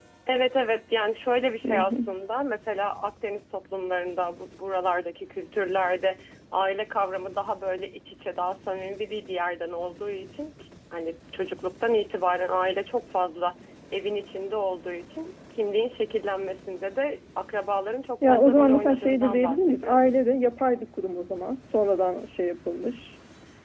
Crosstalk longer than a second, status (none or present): present